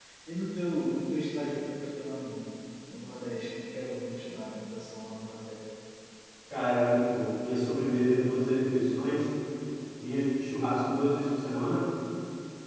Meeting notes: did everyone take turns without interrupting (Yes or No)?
Yes